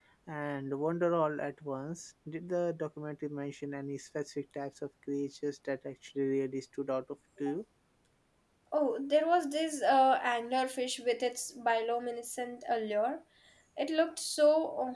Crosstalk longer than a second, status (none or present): none